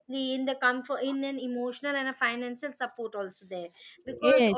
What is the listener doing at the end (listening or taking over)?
listening